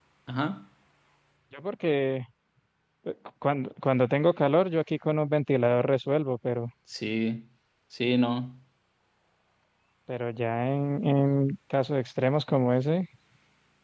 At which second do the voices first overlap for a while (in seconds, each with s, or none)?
none